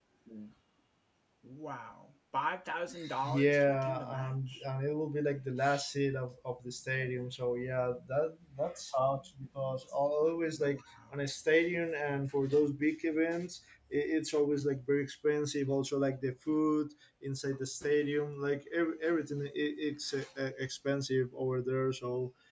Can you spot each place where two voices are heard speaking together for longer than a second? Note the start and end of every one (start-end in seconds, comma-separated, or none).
3.2-4.6